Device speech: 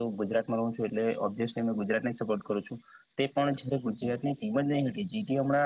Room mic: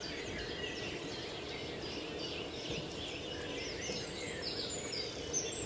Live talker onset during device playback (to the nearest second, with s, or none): none